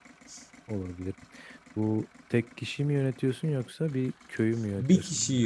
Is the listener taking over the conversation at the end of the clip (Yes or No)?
Yes